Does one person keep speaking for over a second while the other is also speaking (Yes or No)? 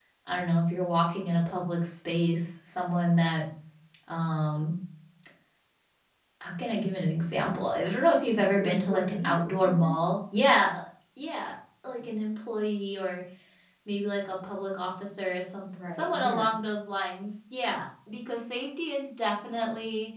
Yes